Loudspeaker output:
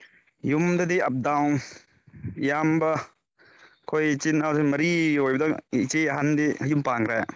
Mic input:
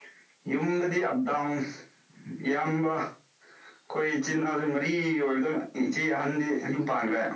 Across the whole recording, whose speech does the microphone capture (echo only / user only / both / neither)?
echo only